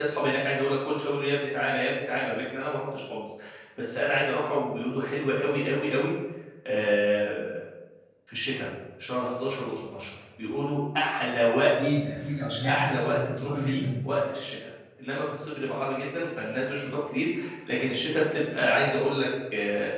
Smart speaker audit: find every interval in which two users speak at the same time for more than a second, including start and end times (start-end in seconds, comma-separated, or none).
12.6-13.9